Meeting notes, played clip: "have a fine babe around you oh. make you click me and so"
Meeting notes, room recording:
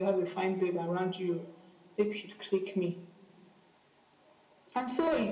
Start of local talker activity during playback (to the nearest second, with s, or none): none